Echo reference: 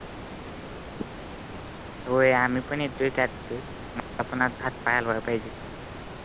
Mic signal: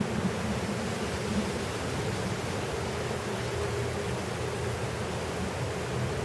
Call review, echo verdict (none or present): none